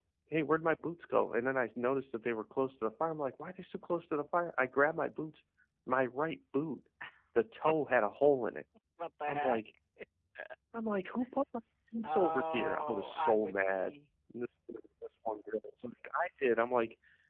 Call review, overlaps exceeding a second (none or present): present